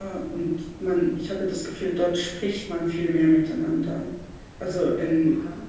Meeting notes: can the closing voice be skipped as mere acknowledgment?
Yes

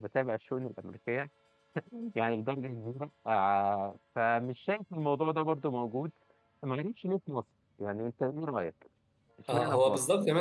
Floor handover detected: Yes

